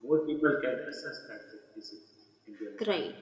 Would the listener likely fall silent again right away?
No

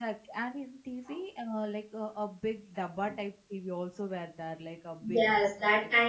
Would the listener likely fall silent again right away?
No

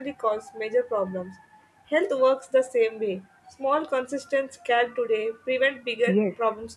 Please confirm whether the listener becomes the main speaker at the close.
Yes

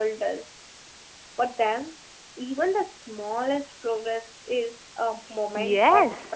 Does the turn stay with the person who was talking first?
No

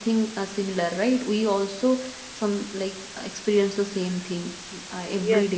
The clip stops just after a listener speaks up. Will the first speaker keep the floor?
No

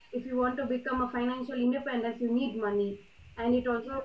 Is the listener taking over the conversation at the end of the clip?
No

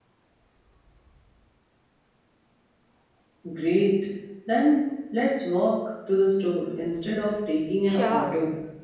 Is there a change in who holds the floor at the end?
Yes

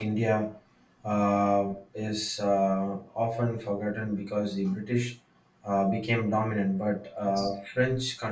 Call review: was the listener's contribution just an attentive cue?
Yes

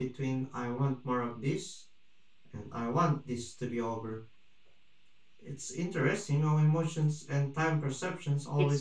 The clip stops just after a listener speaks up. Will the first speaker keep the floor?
No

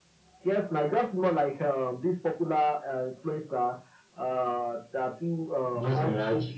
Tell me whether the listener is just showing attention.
Yes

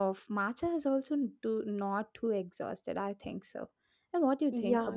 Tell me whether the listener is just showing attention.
No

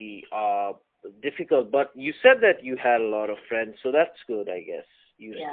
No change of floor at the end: No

